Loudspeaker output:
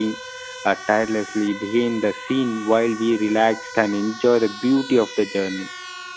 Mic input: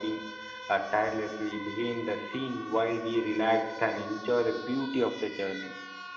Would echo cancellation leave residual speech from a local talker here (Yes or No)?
No